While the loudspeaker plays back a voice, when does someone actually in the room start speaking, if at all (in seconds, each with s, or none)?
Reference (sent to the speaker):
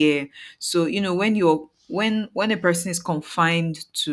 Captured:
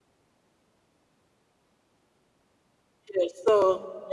3.1 s